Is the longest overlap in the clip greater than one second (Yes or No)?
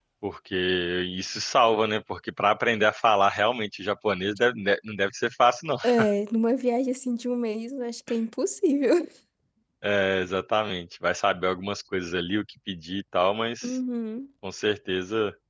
No